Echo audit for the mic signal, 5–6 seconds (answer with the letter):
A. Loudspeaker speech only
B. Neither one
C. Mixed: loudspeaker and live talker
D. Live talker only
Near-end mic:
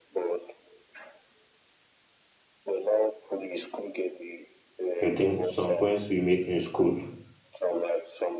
C